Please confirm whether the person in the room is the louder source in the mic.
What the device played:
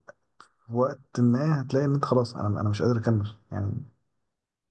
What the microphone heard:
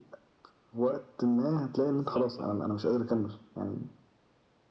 No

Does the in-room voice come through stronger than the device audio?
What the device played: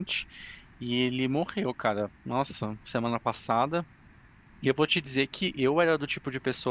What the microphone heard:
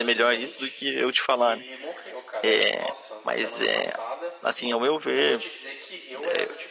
Yes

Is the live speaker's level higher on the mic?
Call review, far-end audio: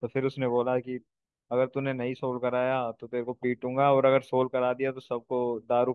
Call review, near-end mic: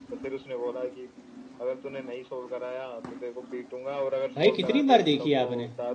Yes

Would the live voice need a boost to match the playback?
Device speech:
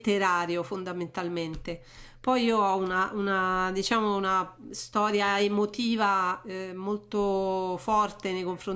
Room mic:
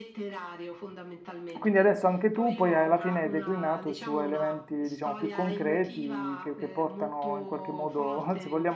No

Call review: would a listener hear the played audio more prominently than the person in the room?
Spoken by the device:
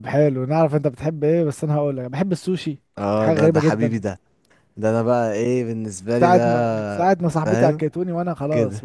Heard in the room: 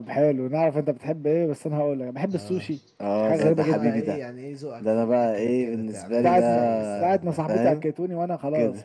Yes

